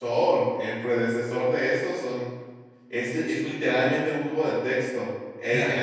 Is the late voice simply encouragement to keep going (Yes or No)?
Yes